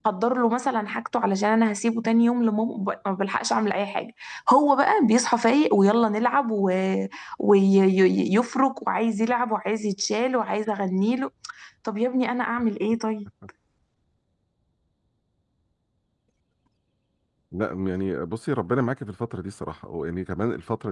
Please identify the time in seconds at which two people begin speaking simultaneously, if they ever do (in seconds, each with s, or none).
none